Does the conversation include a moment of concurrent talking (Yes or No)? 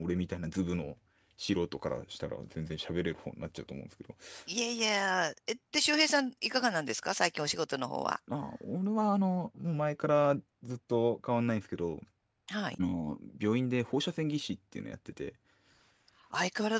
No